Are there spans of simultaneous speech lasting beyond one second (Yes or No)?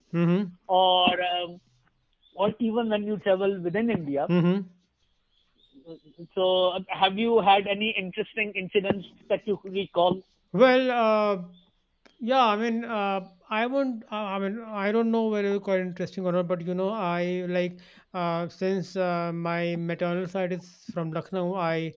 No